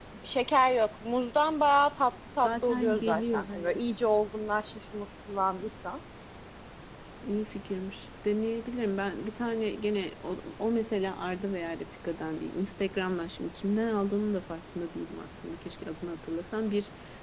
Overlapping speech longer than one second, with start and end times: 2.4-3.8

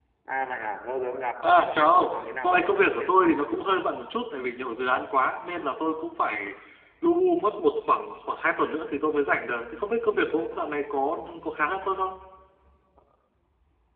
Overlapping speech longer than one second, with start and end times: 1.6-3.0

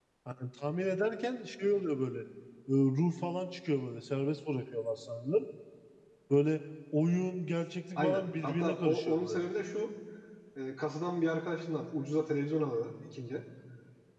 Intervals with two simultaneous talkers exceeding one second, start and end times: 8.0-9.4

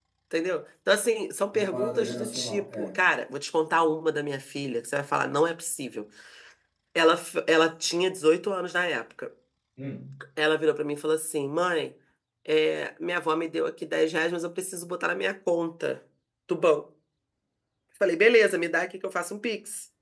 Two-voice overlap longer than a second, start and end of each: 1.5-3.0

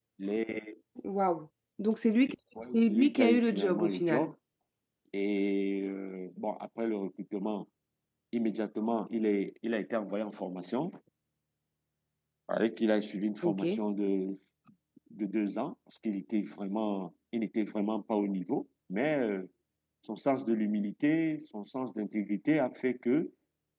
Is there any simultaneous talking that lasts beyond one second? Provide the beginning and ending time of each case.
2.7-4.3

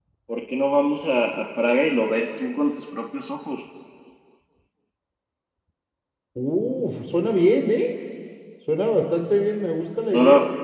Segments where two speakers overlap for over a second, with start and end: none

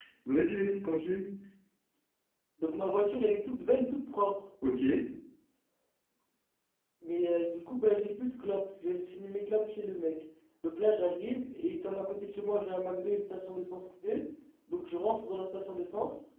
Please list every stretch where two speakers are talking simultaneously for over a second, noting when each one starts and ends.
none

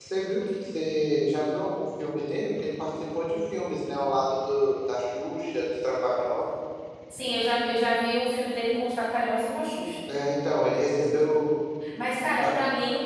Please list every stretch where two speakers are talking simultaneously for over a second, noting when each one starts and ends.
none

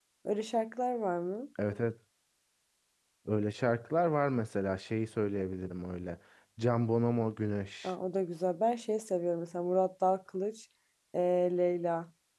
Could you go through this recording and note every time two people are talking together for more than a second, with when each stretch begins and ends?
none

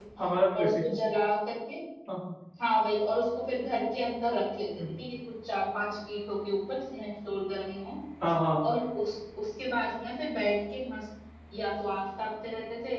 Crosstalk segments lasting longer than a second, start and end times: none

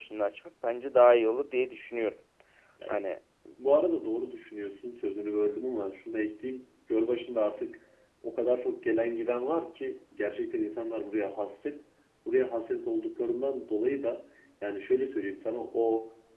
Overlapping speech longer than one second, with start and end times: none

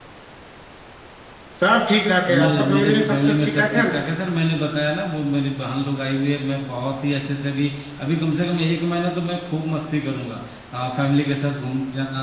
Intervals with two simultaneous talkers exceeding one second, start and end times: 2.4-4.0

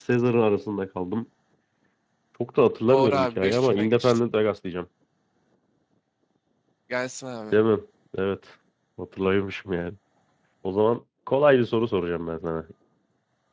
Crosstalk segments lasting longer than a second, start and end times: 2.9-4.2

